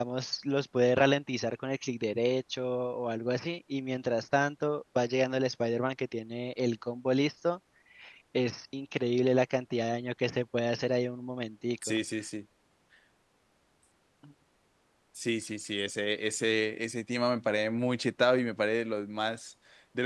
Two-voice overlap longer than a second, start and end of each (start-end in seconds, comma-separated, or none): none